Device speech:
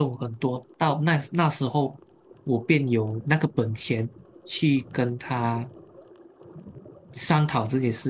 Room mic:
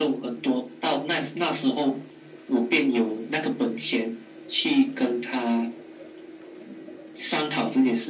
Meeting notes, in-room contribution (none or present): none